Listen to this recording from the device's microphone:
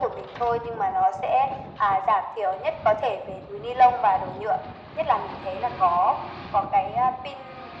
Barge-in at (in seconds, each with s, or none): none